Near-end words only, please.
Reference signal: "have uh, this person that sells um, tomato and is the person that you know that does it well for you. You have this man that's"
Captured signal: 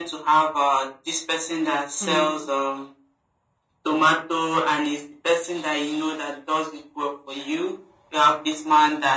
mm.

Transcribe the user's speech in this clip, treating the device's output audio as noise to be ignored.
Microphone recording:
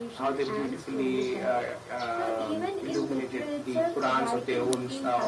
none

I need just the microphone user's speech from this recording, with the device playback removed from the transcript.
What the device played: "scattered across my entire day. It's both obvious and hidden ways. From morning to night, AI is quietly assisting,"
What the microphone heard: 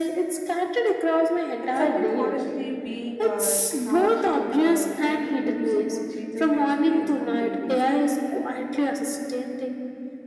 and something honestly being uh, harsh, like uh, the tiny help support changes the experience completely.

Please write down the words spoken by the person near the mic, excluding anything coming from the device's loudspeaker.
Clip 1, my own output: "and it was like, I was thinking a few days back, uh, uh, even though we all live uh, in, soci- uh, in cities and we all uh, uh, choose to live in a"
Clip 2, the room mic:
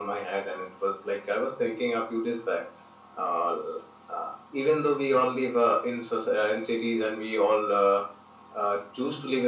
none

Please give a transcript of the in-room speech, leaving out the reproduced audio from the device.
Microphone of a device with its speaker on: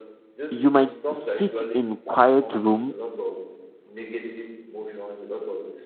you might sit in quiet room

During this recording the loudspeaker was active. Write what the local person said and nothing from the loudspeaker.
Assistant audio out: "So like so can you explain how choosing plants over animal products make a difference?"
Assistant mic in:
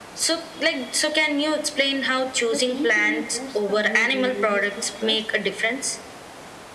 that naturally boosts the mood and reduce the stress?

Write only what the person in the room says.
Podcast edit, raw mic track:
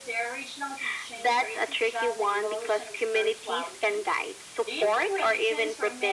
none

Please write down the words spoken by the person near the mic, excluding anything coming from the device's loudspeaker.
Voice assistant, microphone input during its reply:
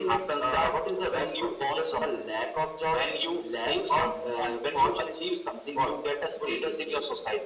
none

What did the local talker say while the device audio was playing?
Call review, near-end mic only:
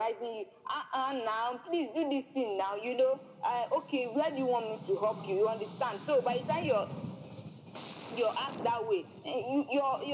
none

